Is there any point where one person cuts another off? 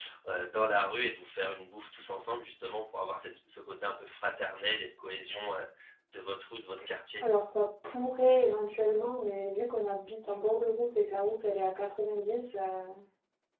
No

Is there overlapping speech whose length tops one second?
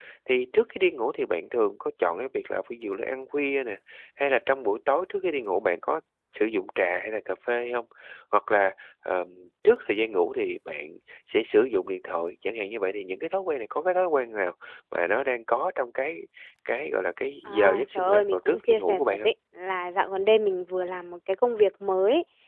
Yes, from 17.5 s

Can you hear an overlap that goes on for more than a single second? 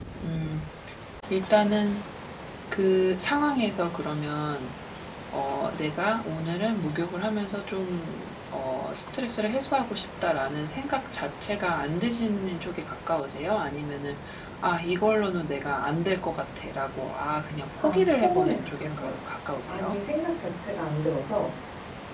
Yes, from 17.8 s

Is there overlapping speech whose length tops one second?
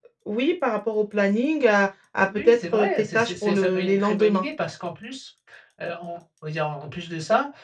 Yes, from 2.3 s

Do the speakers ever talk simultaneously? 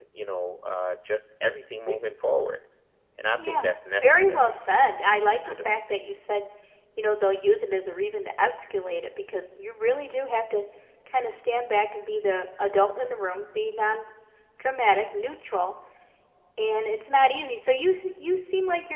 Yes, from 3.4 s

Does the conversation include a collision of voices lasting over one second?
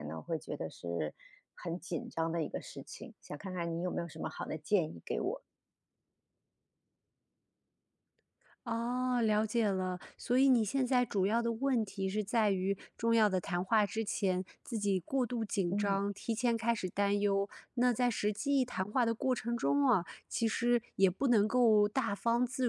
No

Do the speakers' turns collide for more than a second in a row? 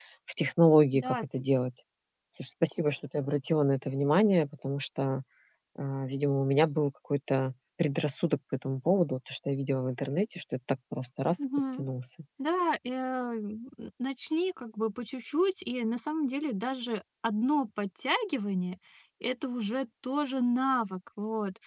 No

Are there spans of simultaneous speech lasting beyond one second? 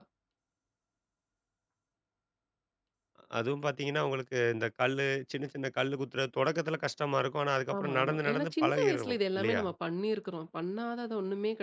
Yes, from 7.7 s

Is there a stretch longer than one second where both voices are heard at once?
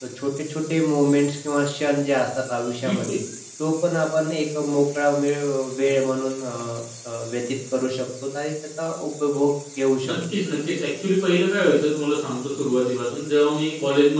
No

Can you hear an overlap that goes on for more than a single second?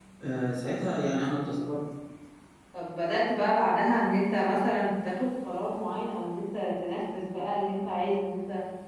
No

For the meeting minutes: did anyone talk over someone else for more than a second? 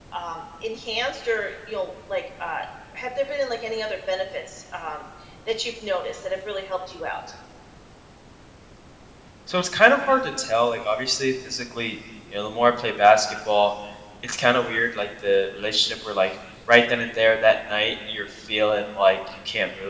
No

